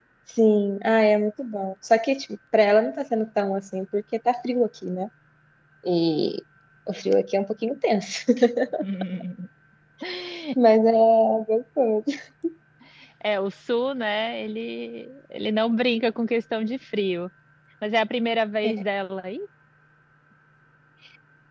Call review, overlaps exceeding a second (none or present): none